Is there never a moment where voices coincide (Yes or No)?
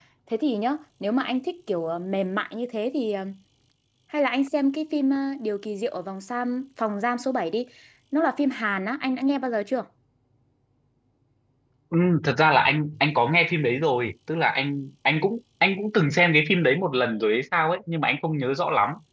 Yes